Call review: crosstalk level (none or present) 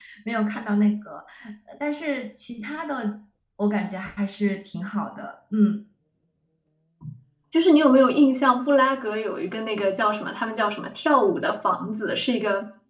none